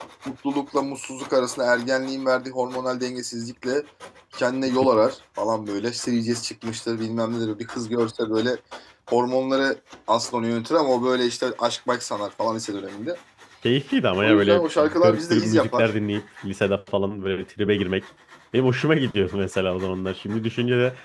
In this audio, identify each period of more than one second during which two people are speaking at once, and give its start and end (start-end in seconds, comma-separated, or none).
14.2-15.9